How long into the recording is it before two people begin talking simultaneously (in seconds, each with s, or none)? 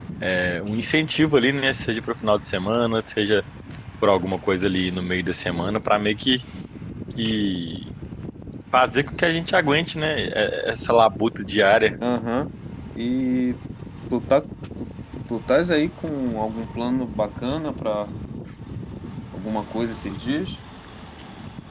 none